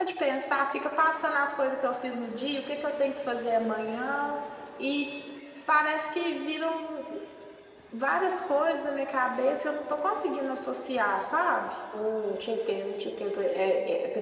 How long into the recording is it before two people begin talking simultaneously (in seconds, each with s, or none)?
none